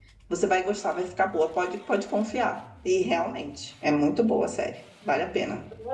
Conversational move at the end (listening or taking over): taking over